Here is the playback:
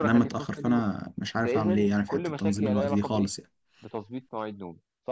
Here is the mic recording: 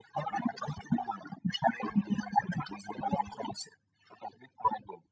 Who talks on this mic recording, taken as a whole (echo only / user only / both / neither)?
echo only